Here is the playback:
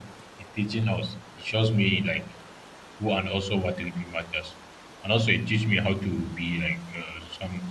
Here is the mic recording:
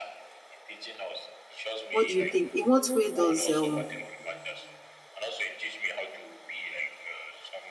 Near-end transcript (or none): What do you think? In what way does um